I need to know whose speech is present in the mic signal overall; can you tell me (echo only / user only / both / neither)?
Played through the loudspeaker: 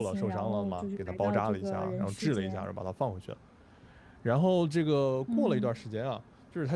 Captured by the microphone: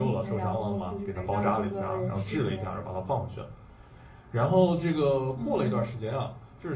echo only